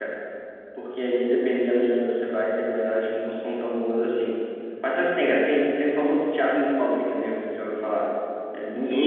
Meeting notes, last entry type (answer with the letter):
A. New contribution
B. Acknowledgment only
A